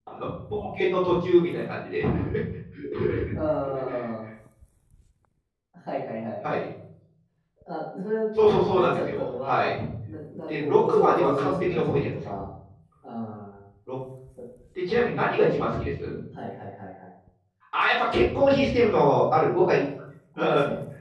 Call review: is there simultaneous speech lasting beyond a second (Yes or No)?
Yes